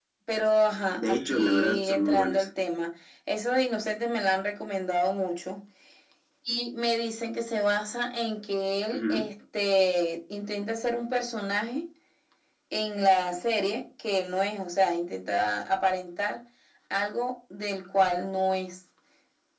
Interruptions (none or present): present